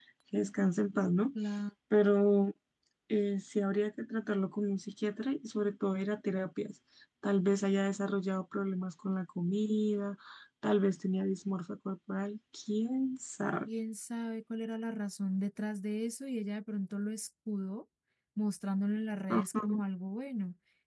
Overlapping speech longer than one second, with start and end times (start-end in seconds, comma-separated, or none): none